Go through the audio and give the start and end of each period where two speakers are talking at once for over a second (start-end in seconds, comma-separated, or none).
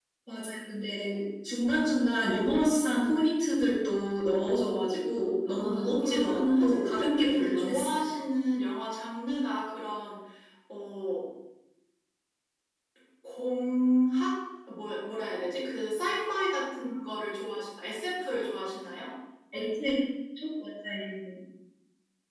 5.5-8.0